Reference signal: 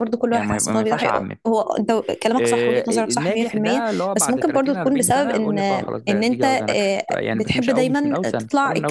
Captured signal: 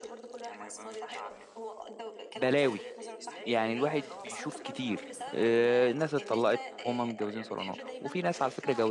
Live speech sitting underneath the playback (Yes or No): No